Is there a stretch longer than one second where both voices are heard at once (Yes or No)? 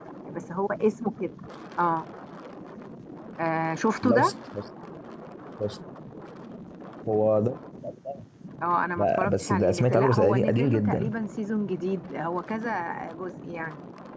Yes